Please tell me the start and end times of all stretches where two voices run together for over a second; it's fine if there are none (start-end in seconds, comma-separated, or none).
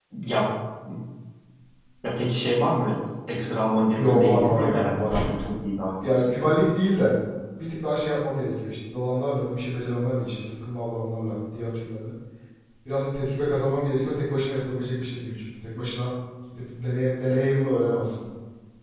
3.9-5.3